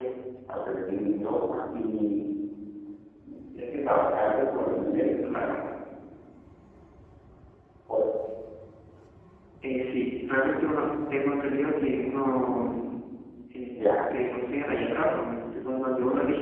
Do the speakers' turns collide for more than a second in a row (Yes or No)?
No